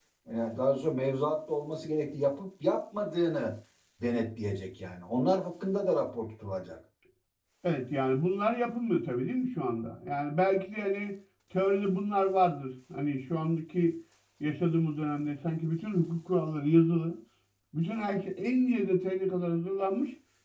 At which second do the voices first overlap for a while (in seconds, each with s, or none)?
none